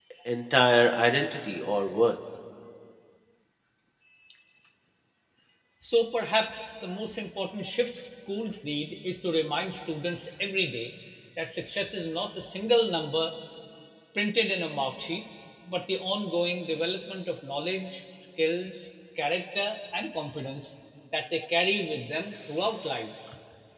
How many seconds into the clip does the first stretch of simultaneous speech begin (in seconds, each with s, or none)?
none